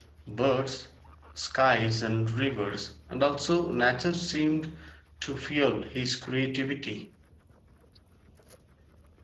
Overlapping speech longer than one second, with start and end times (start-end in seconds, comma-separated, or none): none